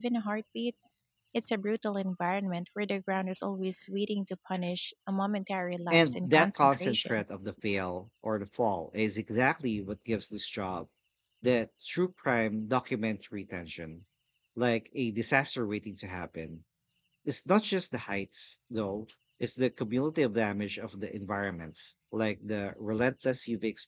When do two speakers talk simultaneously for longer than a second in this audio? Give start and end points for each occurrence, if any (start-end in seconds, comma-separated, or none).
5.9-7.2